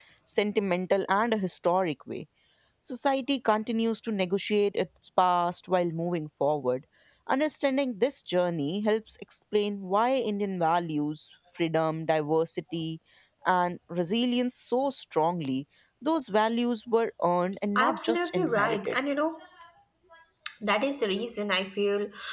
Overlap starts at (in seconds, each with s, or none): 17.8 s